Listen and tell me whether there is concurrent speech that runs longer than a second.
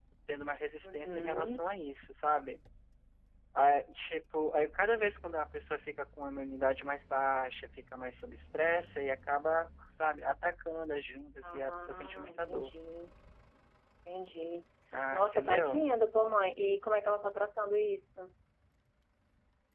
Yes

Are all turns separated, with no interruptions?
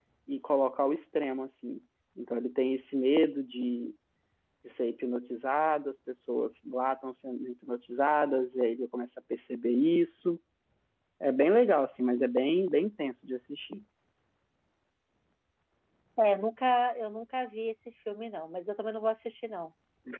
Yes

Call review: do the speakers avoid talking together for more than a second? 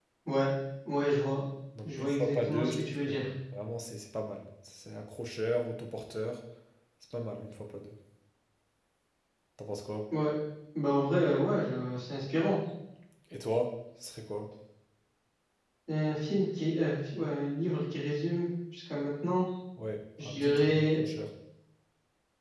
No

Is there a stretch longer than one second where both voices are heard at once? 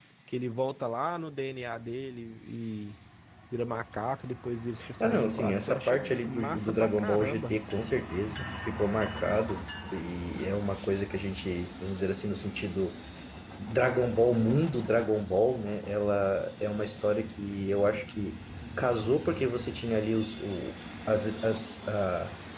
Yes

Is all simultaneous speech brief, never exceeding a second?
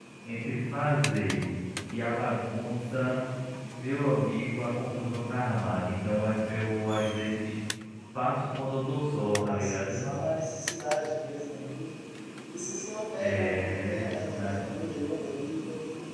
No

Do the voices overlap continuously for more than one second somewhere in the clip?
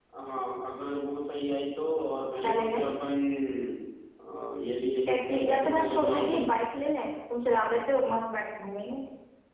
Yes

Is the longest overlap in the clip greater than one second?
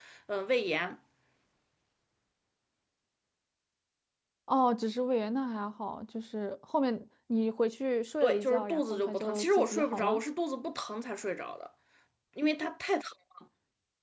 Yes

